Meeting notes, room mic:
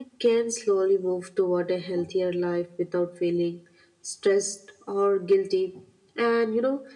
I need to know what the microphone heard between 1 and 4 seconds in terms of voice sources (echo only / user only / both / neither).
user only